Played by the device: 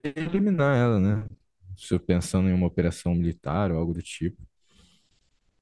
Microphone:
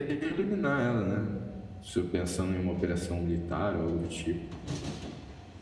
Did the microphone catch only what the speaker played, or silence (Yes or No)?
Yes